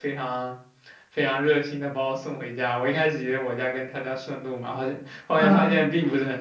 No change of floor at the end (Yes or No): Yes